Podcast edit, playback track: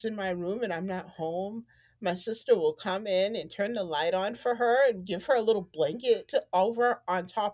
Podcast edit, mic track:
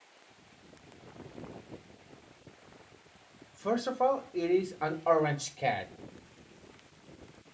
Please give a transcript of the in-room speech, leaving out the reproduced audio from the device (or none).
first of all, it is an orange cat.